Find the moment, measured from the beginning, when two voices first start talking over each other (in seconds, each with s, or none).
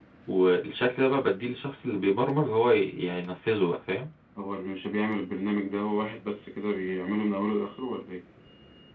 none